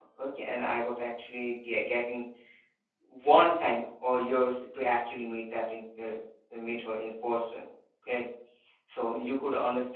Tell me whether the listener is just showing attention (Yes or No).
Yes